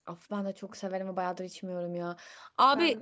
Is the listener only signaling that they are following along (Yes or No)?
Yes